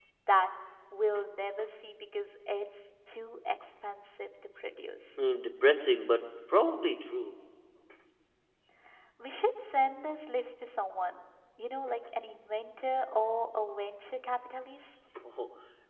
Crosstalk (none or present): none